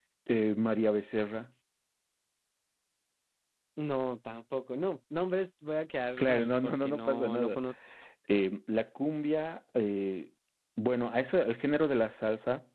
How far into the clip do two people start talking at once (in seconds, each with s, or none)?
6.2 s